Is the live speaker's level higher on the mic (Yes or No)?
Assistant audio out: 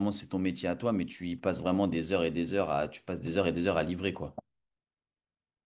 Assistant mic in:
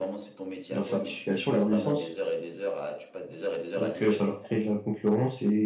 Yes